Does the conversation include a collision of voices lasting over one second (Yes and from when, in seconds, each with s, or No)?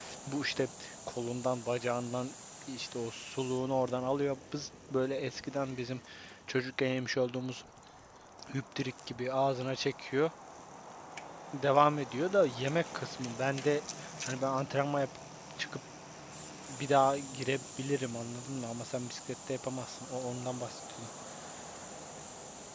No